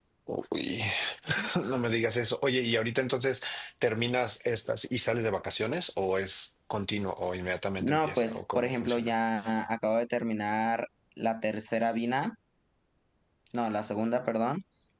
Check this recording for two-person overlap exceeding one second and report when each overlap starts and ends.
7.8-9.1

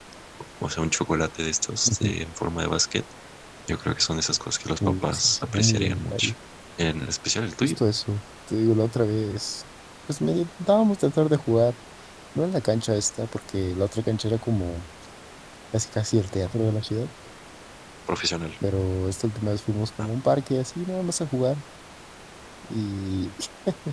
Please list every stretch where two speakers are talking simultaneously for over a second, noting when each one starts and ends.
4.8-6.3

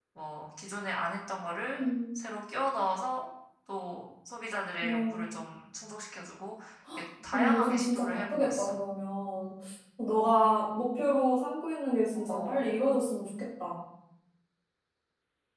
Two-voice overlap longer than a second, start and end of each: 7.3-8.8

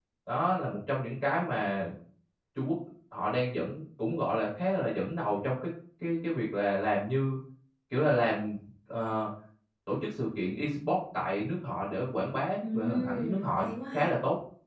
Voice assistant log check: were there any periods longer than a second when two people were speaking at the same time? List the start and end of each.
12.6-14.1

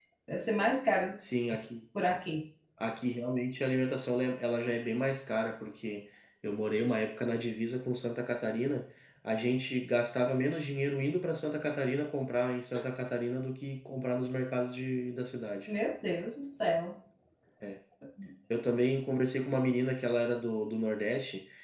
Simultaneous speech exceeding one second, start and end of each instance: none

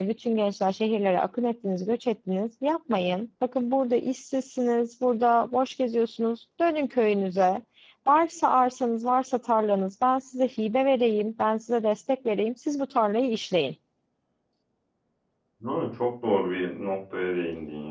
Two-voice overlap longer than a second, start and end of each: none

